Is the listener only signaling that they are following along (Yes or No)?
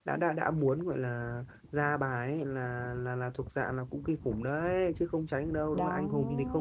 Yes